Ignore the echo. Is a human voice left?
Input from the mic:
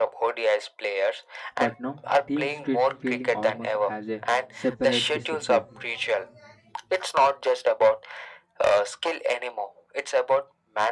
Yes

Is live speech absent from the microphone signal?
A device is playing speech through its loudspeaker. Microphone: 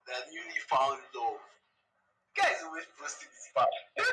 Yes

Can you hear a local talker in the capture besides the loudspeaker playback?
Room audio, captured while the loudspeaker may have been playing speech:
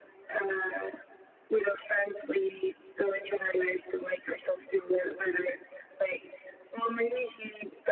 No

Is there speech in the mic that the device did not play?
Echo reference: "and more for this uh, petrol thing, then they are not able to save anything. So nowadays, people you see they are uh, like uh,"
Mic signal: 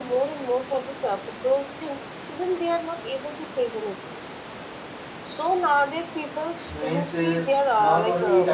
Yes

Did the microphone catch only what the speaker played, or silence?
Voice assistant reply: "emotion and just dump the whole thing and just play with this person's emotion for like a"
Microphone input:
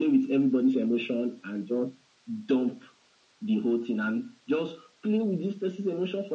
Yes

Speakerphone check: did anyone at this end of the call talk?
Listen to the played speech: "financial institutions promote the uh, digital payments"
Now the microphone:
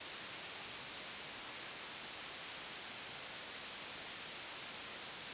No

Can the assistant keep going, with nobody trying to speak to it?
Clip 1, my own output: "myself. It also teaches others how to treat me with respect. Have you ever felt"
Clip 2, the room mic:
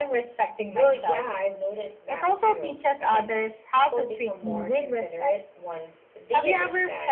No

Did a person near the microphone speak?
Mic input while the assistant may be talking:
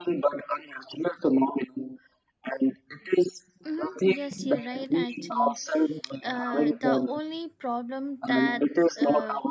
Yes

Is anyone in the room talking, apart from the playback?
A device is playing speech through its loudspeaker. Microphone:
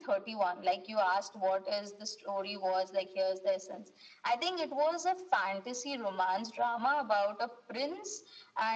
No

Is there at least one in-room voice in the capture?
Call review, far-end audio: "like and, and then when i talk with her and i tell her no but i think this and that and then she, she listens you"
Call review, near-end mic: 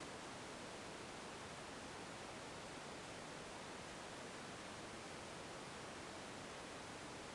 No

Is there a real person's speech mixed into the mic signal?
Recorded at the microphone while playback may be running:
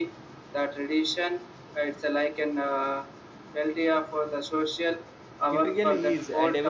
Yes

